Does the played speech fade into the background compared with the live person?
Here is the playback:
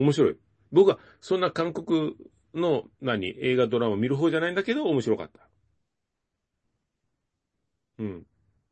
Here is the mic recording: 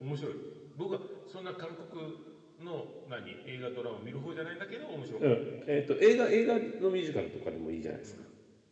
Yes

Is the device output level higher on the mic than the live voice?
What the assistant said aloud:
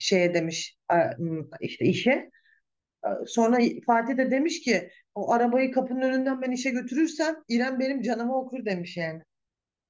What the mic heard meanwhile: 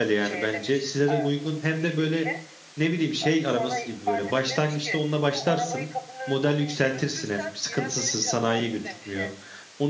No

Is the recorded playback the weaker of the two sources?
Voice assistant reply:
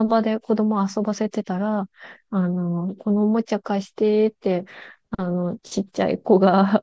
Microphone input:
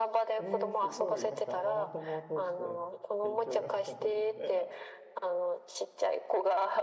No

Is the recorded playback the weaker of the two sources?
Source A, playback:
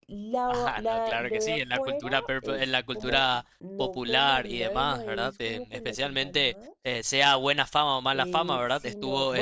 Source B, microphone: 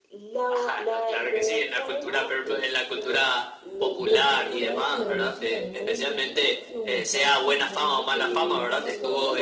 No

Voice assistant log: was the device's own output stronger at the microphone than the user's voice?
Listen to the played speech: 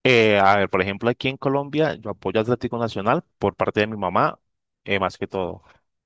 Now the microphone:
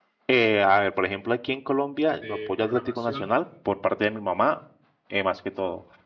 Yes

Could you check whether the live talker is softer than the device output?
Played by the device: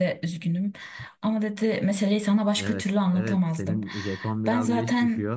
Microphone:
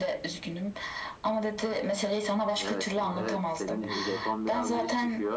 Yes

